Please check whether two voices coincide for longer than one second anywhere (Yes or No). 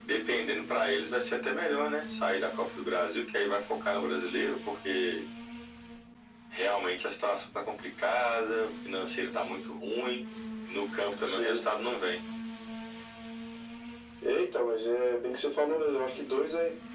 No